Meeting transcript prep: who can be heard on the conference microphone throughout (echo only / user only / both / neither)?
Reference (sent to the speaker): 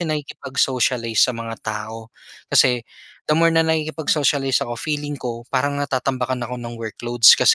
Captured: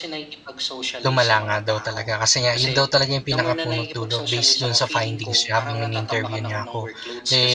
both